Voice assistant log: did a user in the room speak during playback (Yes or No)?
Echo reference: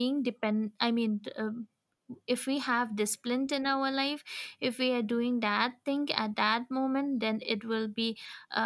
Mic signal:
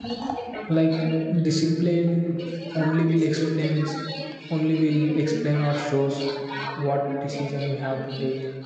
Yes